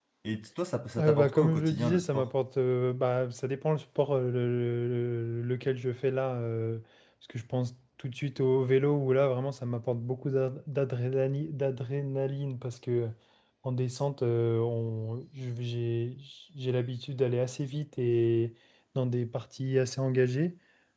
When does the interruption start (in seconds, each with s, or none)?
1.0 s